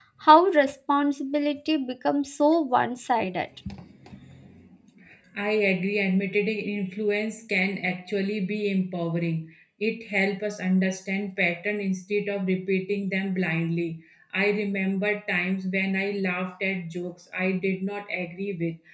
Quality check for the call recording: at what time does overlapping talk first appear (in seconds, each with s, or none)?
none